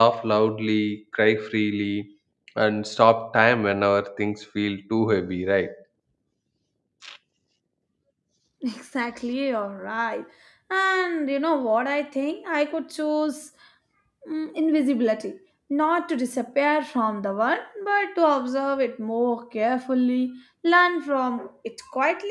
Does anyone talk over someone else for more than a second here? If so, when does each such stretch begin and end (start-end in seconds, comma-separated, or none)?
none